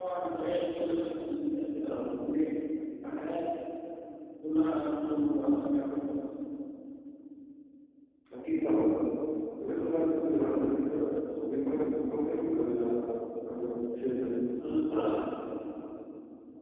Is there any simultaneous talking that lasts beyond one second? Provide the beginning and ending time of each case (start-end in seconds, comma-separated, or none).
none